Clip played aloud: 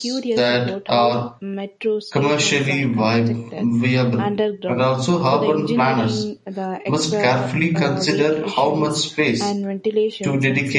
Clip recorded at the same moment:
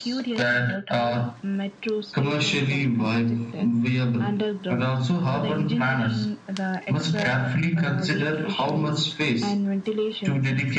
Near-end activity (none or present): none